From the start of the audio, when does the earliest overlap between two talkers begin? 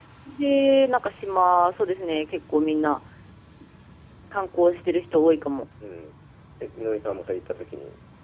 none

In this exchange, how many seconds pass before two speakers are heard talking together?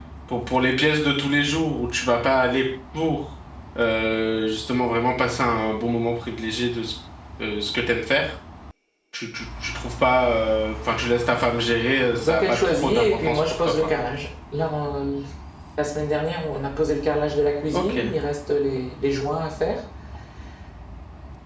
12.2 s

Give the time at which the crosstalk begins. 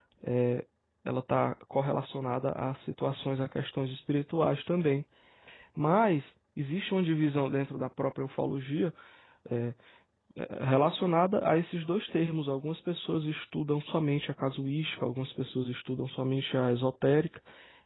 none

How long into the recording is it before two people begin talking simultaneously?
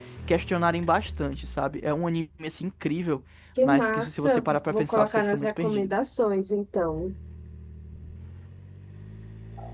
3.6 s

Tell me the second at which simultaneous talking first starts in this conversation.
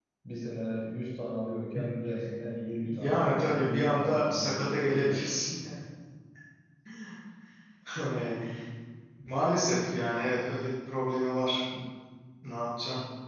2.8 s

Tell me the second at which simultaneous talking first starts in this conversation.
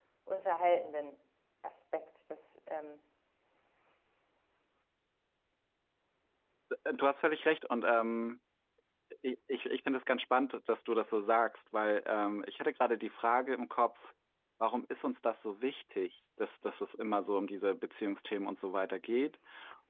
none

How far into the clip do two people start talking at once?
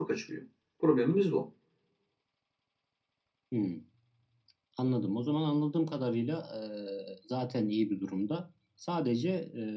none

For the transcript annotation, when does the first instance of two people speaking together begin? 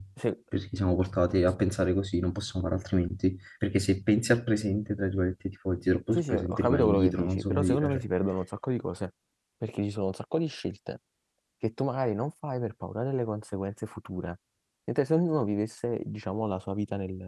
6.1 s

